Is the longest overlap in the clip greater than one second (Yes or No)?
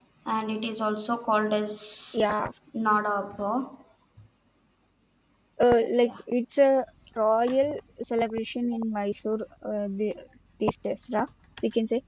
No